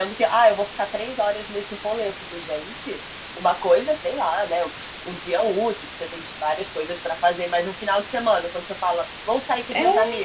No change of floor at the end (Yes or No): Yes